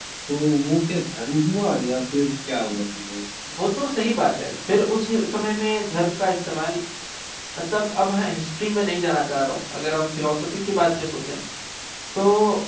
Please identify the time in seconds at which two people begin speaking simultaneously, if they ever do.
none

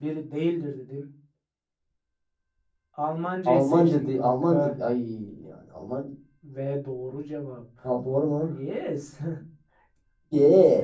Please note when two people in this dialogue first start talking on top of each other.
3 s

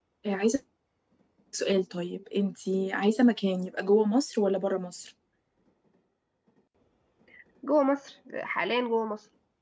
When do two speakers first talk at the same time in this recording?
none

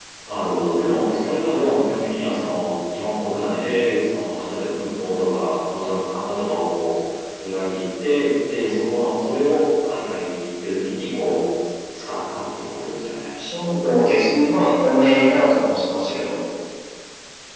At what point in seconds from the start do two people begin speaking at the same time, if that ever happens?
none

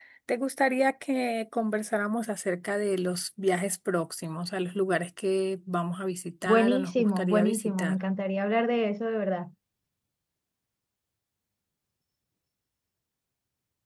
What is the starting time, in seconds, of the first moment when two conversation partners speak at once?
6 s

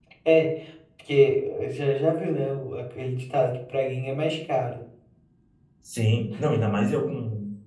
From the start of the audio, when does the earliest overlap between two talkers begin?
none

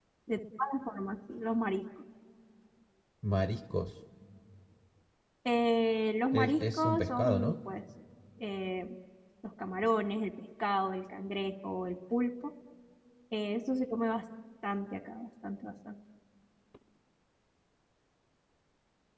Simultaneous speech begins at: 6 s

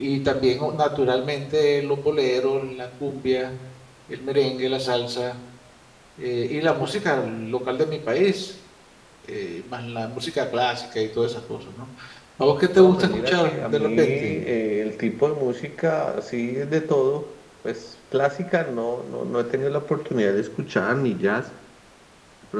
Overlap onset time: 13 s

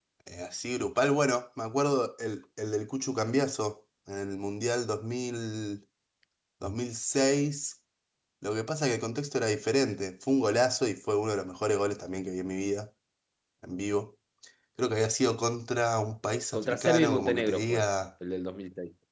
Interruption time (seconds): 17 s

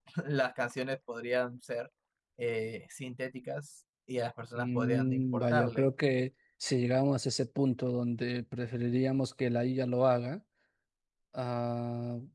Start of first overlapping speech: 5 s

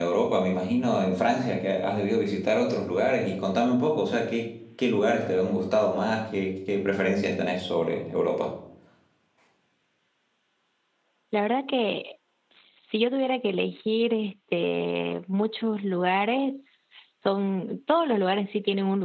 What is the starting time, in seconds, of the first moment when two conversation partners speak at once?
none

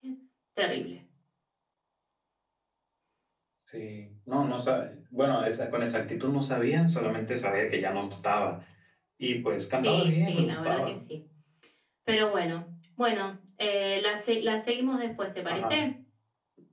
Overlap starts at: 10 s

